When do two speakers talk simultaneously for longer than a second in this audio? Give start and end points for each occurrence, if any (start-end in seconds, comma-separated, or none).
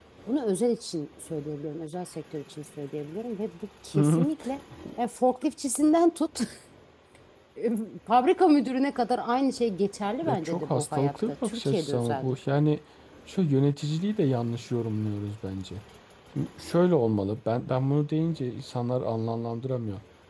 10.2-12.6